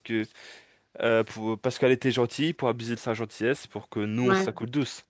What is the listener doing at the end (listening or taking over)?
listening